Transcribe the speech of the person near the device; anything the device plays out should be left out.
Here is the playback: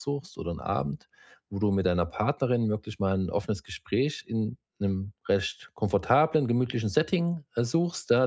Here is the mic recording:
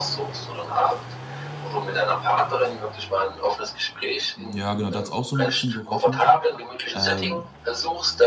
Hm, ja, genau, da hat's auch so ein bisschen gerochen. Ähm

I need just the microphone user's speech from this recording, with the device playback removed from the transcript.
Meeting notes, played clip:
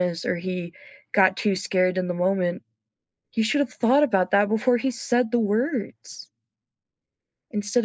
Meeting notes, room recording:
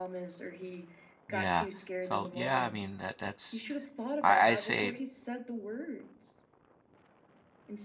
Yeah. So, yeah, I mean, that that's I I say

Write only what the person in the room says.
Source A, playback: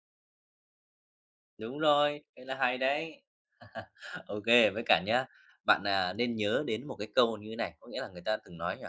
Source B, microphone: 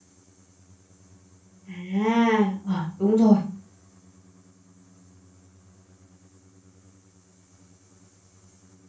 À, ờ, đúng rồi.

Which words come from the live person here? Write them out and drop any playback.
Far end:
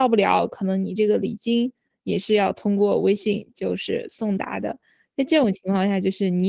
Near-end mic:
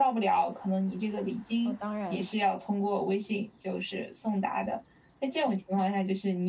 哦，当然，

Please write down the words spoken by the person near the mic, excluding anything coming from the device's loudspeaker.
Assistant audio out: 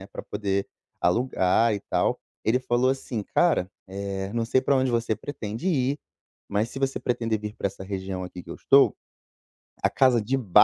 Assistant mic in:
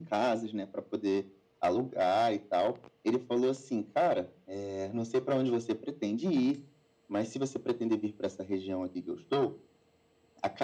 none

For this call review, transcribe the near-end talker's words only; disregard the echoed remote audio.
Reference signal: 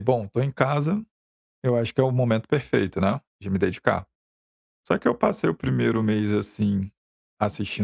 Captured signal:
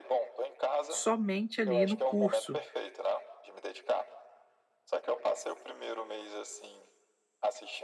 somente ali no curso,

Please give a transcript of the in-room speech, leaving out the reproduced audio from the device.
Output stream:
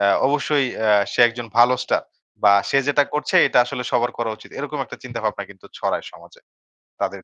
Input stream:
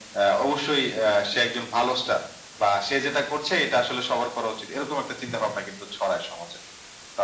none

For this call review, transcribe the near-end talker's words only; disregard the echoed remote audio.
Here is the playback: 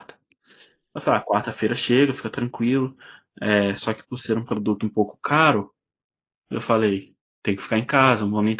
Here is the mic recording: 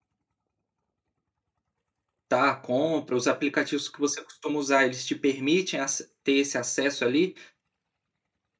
tá a compra? Os aplicativos que você costuma usar, eles te permitem ace ter esse acesso ali

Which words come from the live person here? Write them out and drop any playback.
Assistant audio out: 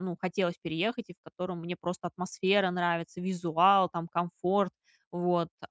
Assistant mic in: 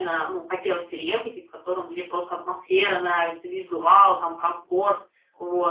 none

